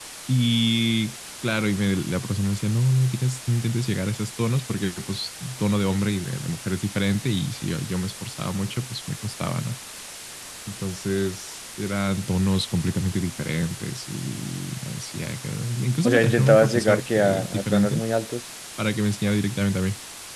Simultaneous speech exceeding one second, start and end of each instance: 16.0-18.0

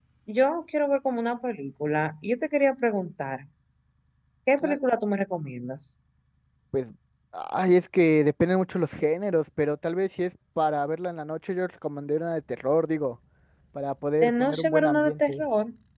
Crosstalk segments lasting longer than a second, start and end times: 14.2-15.4

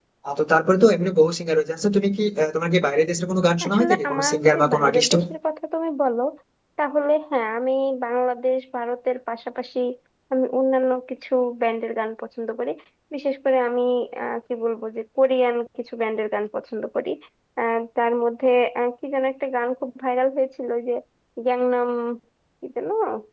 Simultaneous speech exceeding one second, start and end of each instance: 3.6-5.1

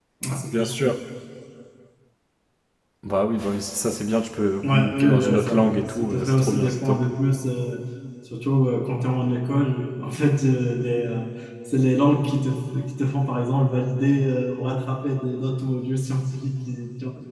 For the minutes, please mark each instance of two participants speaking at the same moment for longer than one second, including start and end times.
4.6-7.0

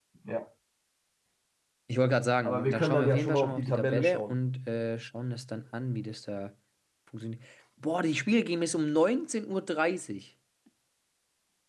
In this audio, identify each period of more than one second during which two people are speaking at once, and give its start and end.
2.4-4.4

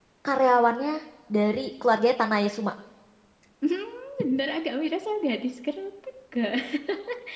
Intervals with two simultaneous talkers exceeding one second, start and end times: none

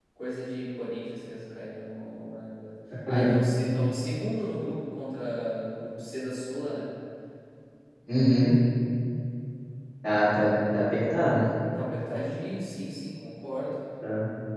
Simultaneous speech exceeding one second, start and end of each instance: none

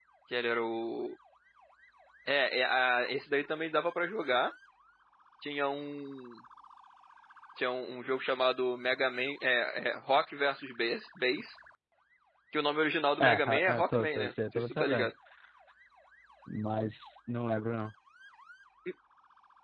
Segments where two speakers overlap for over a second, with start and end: 13.2-15.1

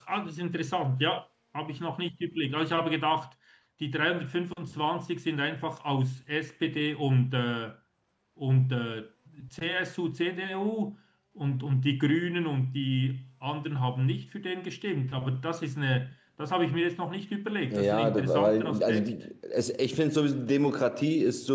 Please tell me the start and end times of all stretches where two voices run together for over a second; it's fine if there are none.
17.7-19.1

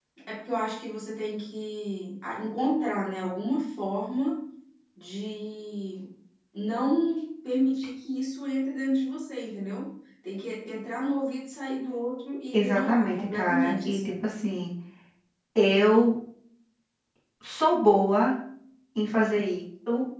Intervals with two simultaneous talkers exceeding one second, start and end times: 12.5-14.0

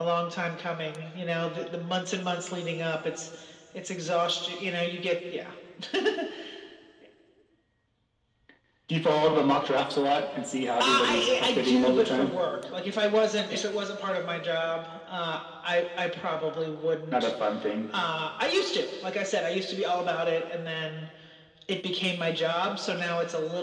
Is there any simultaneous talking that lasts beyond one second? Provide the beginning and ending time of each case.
10.8-12.3

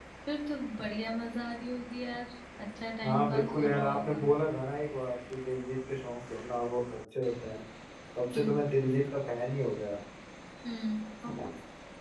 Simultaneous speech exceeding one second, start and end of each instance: 3.0-4.3

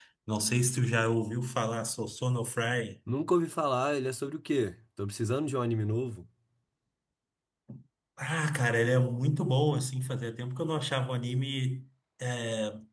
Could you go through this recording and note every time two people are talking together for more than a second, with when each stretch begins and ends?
none

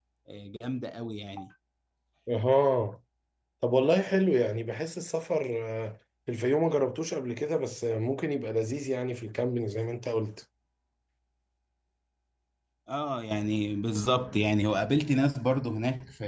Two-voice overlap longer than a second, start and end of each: none

